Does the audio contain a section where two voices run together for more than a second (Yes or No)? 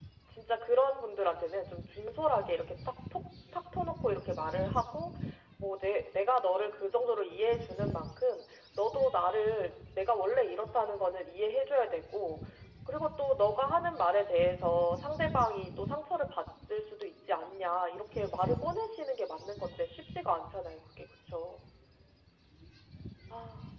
No